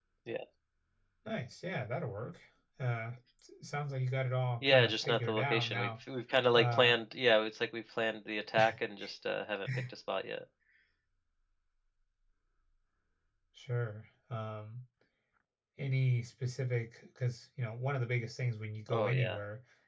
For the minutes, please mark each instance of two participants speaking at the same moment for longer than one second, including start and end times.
4.6-5.9

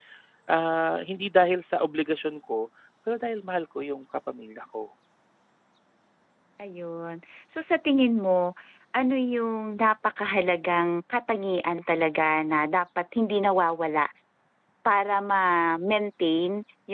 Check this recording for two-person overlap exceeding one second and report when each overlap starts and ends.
none

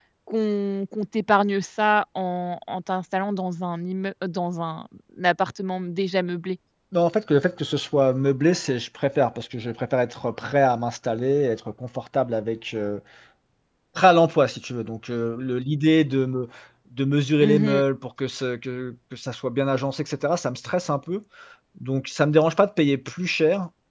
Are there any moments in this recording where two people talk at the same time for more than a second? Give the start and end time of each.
none

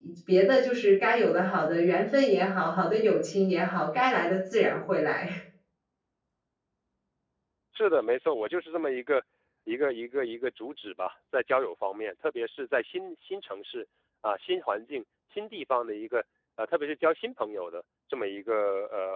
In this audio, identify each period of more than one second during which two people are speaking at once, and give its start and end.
none

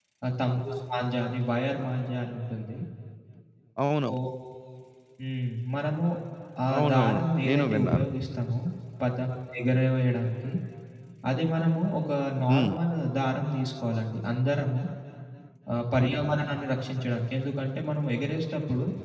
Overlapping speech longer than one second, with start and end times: 6.8-8.0

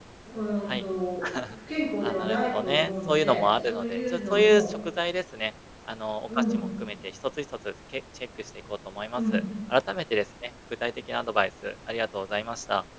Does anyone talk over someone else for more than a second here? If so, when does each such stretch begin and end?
2.0-4.7

